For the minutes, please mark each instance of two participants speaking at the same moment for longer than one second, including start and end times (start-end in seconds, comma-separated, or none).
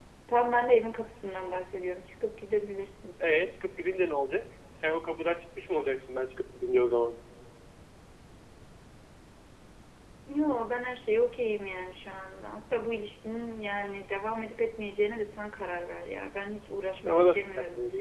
none